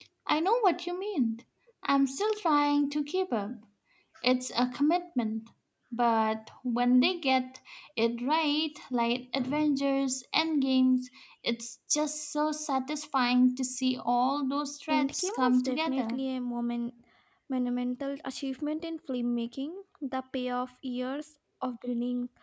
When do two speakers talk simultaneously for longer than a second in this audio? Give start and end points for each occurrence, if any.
14.9-16.2

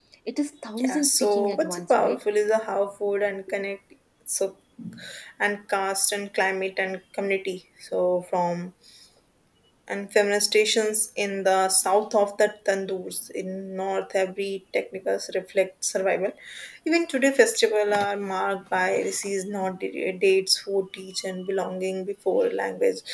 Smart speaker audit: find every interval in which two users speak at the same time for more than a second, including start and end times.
0.8-2.2

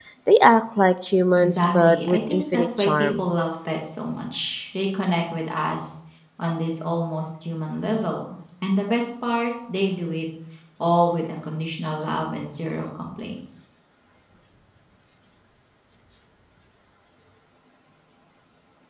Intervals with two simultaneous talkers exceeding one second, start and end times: 1.4-3.2

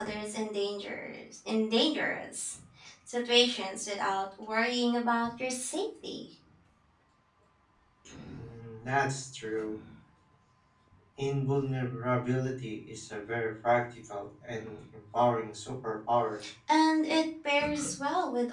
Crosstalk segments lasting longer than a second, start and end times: none

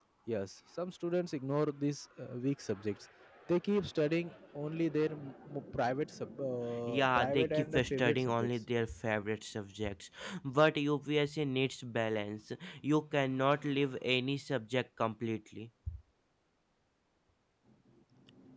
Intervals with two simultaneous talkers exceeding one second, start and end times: 6.9-8.5

